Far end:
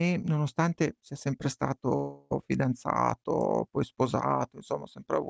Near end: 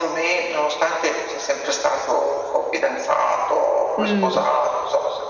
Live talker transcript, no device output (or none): Mh.